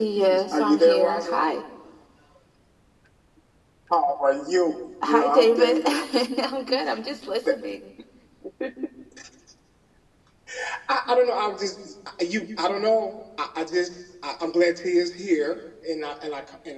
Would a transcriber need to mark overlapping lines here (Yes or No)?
Yes